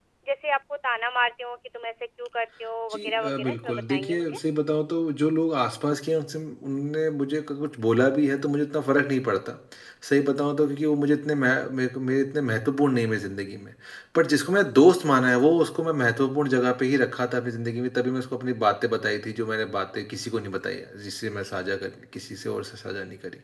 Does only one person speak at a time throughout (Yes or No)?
No